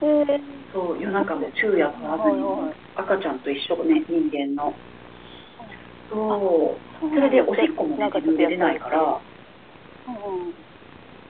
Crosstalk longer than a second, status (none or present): present